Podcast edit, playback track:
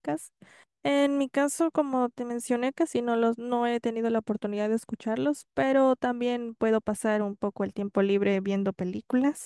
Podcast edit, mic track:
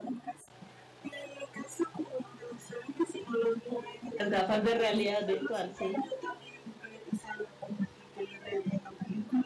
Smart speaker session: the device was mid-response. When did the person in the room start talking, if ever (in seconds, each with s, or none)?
4.1 s